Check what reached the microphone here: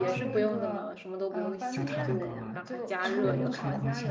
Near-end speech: present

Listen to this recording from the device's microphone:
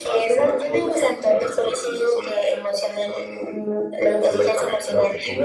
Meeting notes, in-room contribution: present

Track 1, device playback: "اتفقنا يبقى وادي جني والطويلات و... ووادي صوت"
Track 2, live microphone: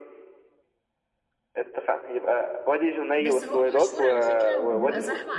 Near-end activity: present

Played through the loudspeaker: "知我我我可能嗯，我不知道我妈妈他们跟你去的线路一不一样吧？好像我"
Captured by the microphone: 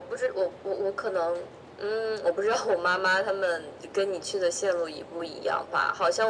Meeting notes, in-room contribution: none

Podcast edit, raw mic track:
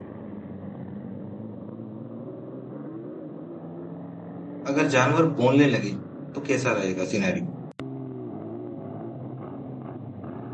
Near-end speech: present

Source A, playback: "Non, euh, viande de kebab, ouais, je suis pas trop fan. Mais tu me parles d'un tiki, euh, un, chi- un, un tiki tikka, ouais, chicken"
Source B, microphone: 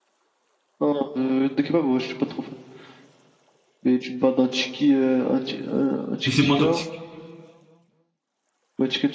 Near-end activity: present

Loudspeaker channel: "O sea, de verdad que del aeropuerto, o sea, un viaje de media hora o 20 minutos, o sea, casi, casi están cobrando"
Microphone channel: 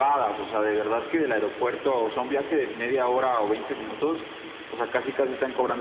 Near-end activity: none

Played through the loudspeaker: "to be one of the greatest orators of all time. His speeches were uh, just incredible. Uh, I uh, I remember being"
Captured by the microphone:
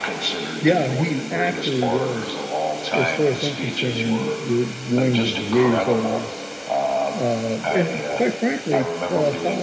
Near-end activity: present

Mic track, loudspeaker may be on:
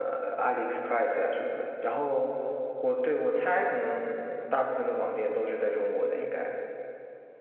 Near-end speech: present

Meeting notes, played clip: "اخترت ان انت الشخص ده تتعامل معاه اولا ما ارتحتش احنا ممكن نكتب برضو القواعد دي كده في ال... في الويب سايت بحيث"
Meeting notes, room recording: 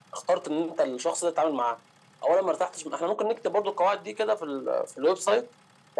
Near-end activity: none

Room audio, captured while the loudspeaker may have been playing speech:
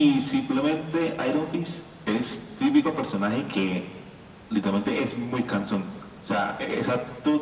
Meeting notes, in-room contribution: none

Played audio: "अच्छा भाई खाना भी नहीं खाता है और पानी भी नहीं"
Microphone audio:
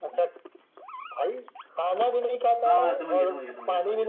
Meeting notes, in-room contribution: present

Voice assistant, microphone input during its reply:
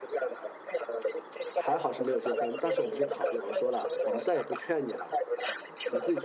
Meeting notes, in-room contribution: present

